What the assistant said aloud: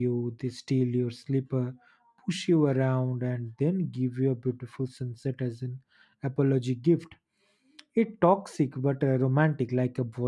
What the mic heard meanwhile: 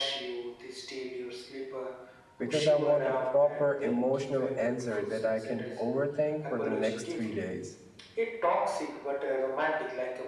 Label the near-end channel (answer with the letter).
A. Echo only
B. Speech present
B